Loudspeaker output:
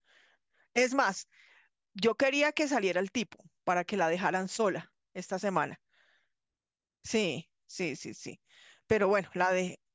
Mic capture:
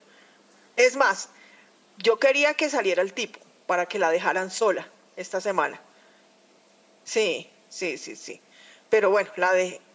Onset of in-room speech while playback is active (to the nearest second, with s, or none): none